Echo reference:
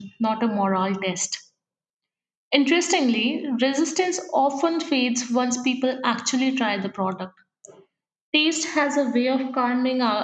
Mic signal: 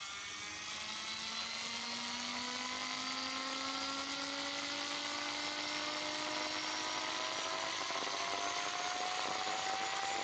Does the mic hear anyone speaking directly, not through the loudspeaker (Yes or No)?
No